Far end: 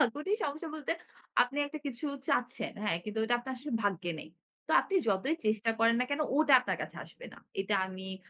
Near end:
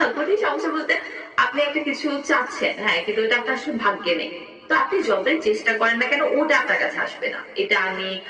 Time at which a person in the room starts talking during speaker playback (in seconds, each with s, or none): none